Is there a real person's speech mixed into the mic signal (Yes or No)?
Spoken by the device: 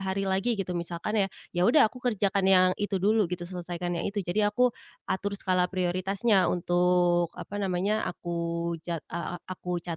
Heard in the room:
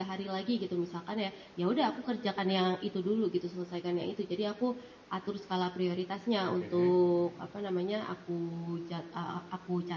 Yes